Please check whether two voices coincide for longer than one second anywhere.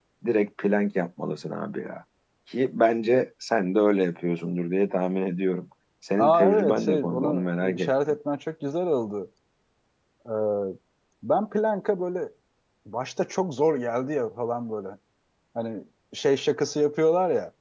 Yes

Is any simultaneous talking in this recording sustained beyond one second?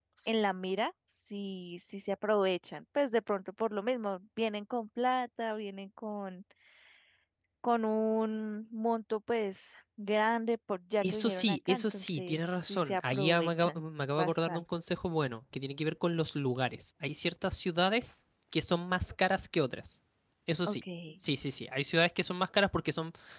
Yes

